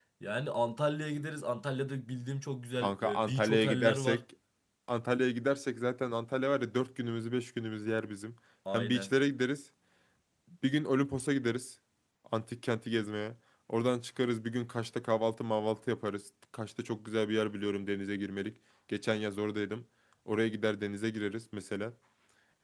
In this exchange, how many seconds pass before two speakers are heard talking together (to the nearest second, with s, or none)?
3 s